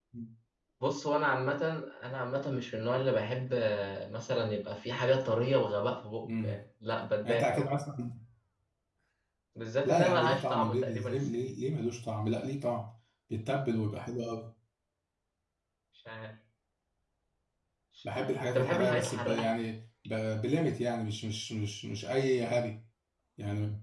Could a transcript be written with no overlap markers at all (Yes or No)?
No